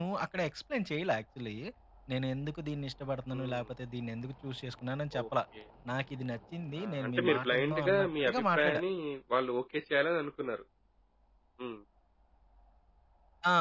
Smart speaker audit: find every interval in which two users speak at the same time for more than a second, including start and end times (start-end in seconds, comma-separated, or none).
6.8-8.8